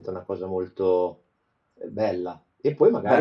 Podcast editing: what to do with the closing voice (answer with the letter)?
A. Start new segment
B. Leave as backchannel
B